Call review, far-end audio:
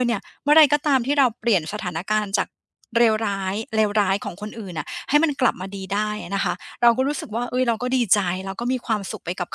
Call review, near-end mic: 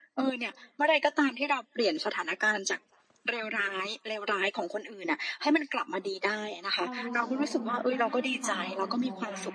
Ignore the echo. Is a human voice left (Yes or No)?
Yes